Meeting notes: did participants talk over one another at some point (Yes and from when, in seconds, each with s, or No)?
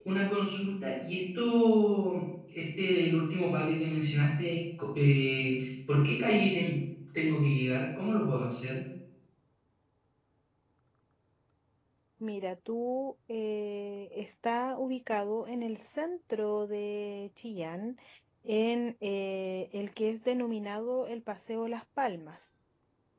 No